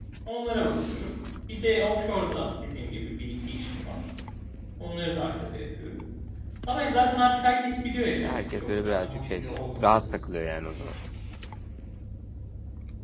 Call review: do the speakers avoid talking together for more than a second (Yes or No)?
No